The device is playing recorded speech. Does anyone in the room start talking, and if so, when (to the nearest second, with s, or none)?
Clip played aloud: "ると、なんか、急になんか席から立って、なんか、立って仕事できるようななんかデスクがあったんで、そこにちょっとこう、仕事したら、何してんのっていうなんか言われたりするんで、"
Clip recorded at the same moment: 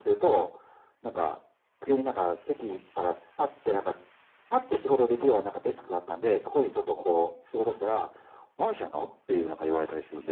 none